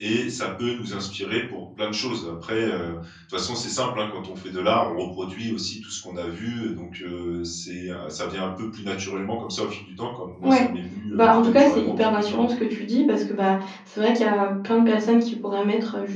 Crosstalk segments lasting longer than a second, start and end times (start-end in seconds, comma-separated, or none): 11.1-12.4